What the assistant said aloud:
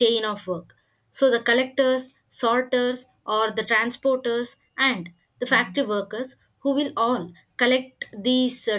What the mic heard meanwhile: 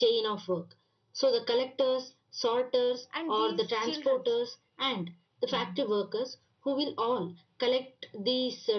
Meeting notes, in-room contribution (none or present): present